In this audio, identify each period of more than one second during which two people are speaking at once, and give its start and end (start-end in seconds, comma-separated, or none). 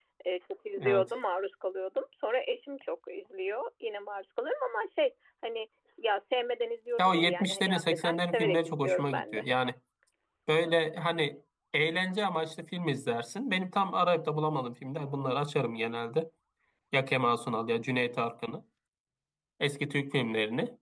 7.0-9.4